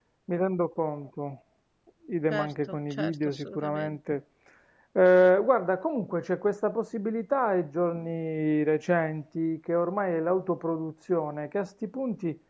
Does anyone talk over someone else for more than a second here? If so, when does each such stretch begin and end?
2.3-4.0

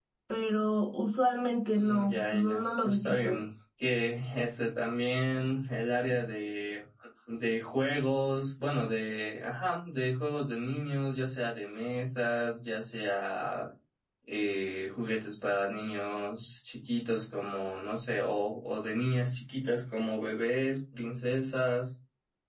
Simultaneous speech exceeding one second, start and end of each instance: 1.7-3.4

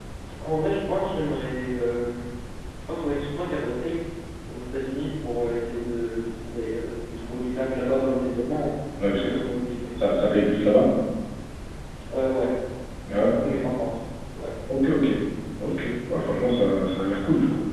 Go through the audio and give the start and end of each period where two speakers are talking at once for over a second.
none

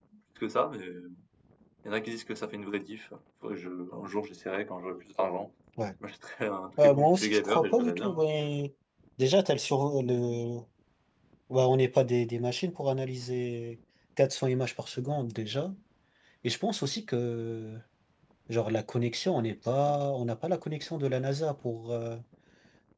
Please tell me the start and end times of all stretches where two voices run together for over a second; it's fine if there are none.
6.8-8.2

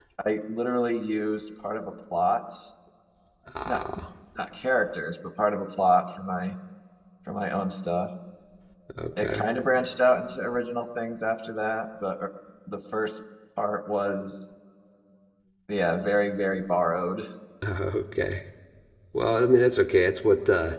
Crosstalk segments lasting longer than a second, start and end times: none

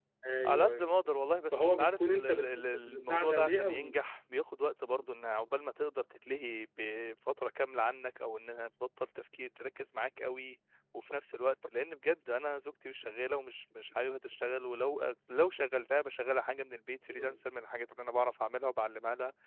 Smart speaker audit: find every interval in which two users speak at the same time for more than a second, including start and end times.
1.5-3.9

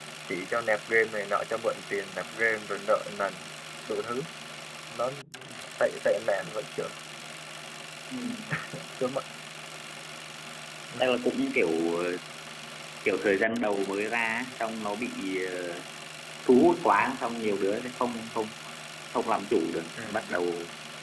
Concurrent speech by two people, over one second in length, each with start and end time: none

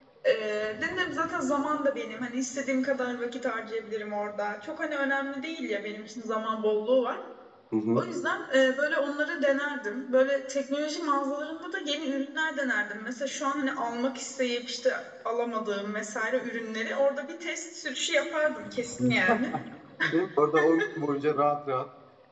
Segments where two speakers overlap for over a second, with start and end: none

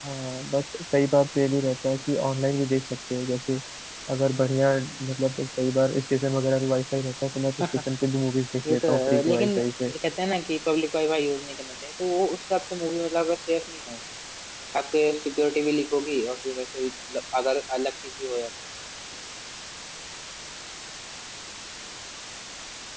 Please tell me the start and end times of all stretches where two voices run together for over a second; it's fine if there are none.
8.7-9.9

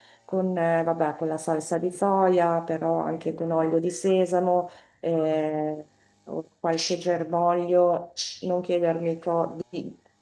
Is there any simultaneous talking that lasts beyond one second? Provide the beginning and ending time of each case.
none

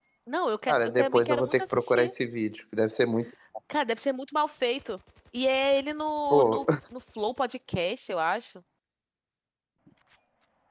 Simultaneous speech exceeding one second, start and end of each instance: 0.7-2.1

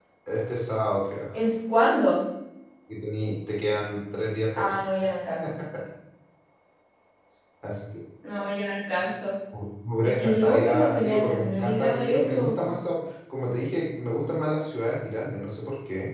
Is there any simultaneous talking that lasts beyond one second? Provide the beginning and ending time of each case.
10.0-12.5

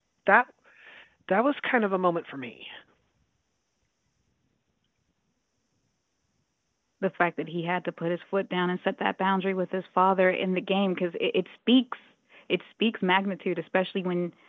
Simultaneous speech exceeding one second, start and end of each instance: none

